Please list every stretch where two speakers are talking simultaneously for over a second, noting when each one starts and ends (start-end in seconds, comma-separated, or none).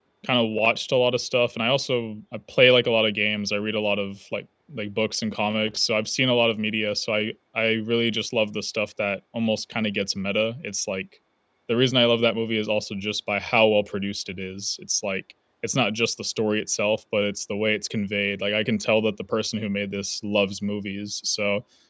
none